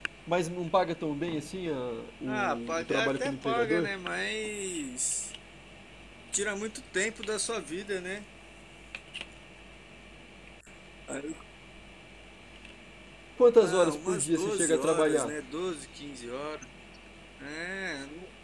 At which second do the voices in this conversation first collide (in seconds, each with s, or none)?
2.2 s